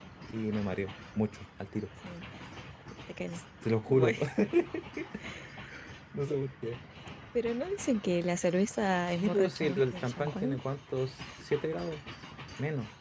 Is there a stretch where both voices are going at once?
Yes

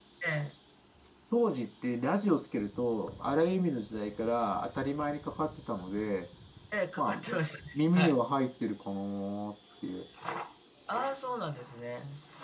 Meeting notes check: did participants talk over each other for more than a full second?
No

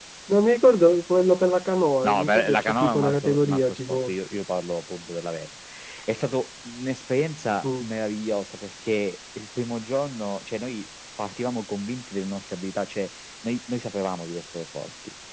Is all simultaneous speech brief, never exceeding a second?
No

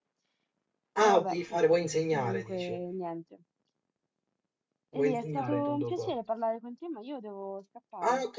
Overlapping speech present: Yes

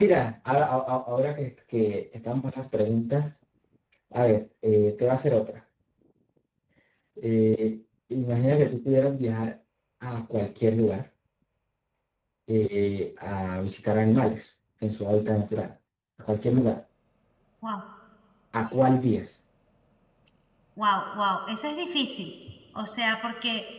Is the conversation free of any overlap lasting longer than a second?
Yes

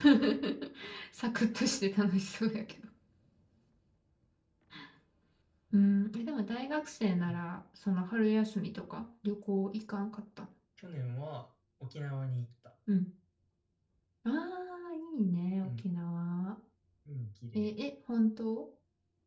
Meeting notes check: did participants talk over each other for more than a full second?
No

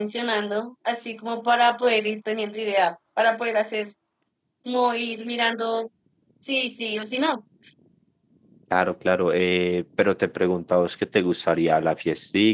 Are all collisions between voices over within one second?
Yes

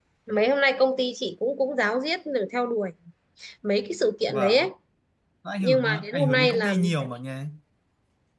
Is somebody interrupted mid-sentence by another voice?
Yes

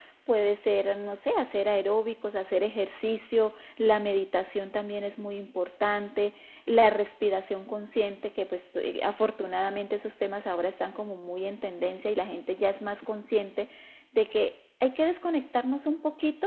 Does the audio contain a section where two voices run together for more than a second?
No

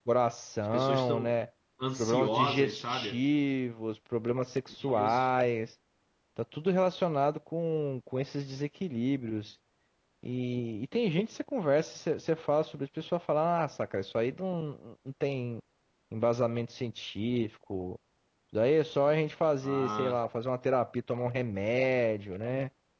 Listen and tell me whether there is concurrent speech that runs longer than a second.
Yes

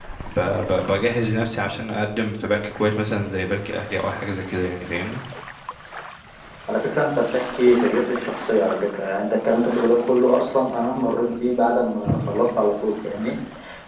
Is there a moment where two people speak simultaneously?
No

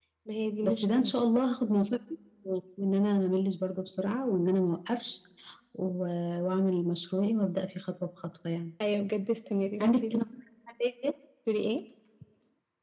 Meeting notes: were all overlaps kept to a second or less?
Yes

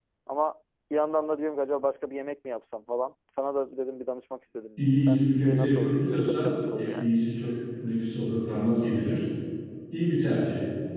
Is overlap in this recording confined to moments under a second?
No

